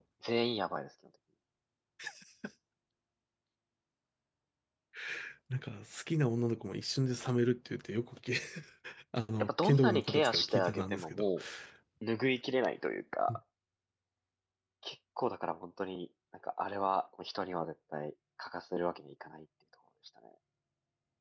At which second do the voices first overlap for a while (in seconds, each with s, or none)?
9.4 s